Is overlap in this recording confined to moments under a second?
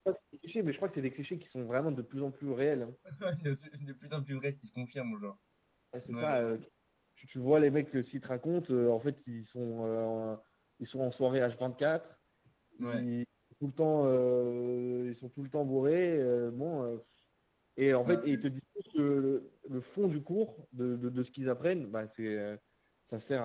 Yes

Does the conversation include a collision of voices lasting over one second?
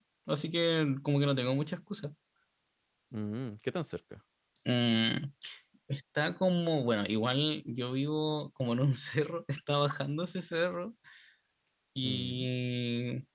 No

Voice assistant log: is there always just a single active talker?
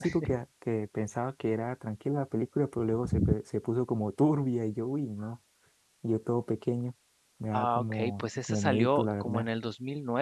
No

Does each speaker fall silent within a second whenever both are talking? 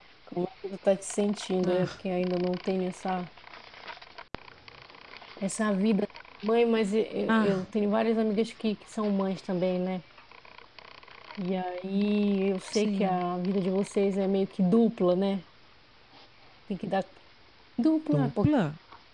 Yes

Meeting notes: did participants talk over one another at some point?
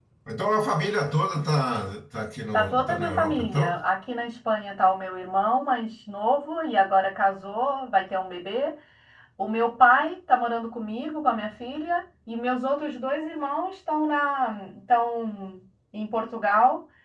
Yes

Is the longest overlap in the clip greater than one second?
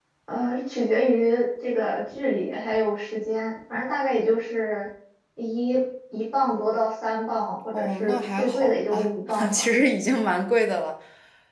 Yes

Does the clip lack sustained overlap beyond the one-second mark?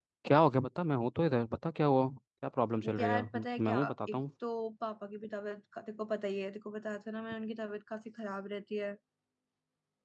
No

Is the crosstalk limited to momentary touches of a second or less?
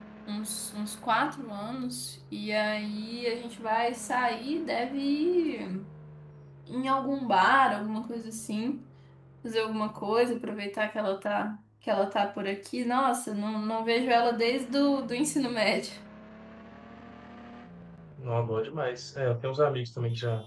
Yes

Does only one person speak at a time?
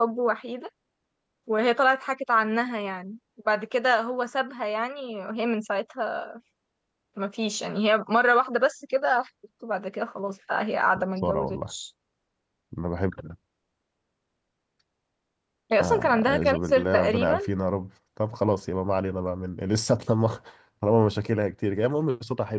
No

